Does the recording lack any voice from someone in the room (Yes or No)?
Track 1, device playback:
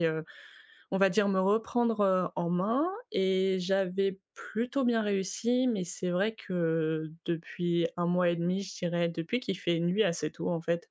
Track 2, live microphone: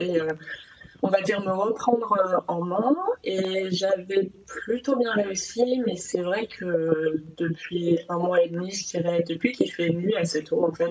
Yes